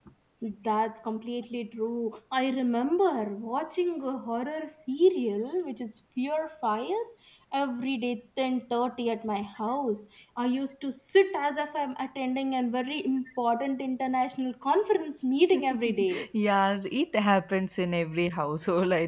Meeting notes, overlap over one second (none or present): none